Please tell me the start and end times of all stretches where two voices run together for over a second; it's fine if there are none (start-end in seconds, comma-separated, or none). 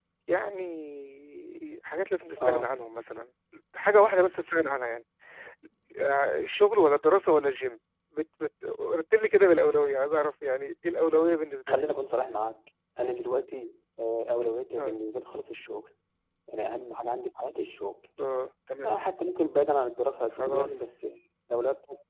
none